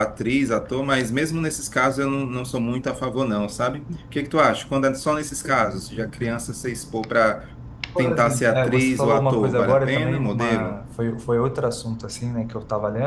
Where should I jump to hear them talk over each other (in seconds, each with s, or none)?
8.0 s